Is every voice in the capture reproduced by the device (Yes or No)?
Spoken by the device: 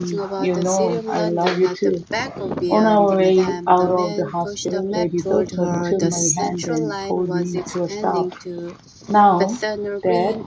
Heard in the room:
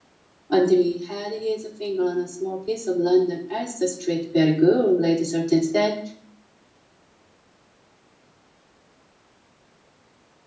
No